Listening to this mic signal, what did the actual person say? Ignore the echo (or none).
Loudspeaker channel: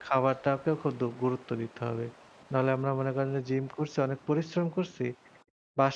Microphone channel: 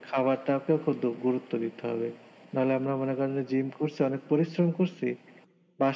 none